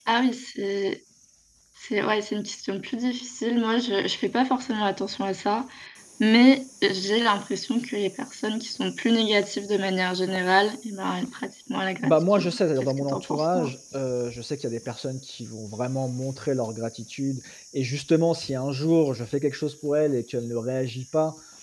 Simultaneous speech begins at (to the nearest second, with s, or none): 12 s